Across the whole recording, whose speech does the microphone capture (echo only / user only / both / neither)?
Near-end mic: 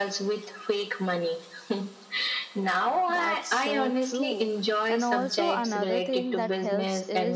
both